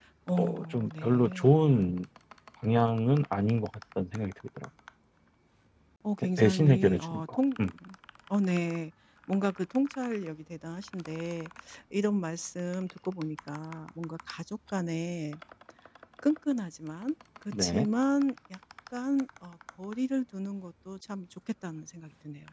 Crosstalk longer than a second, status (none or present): present